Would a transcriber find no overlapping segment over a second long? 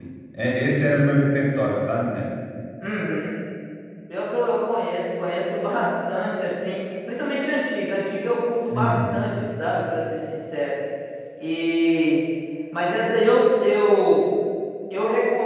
Yes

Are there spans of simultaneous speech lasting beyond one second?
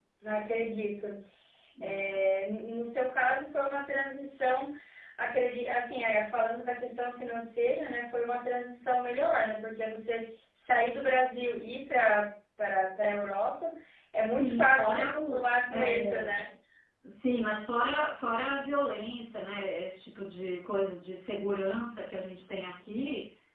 Yes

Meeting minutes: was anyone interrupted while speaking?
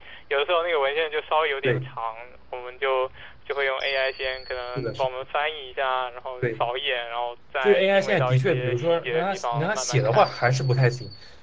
Yes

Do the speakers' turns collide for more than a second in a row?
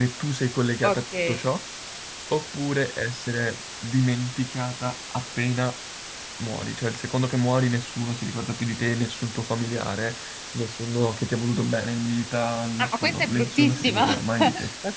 Yes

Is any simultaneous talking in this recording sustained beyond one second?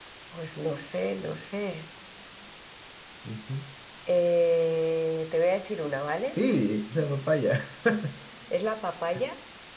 No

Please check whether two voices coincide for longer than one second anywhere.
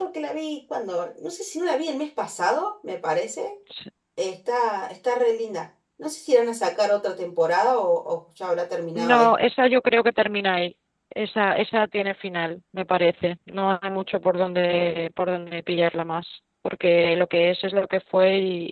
No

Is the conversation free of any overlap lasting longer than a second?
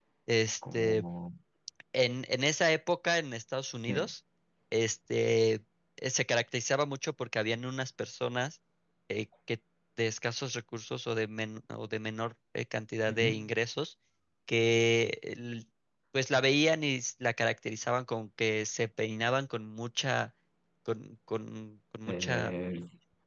Yes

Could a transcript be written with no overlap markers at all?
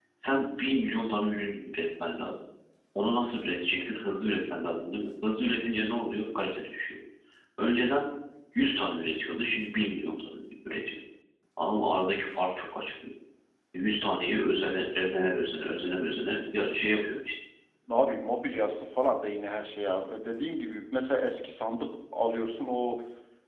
Yes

